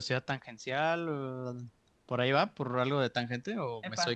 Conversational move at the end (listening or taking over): taking over